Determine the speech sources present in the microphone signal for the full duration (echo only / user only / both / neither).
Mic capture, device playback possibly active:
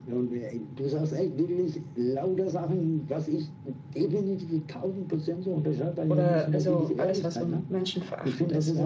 both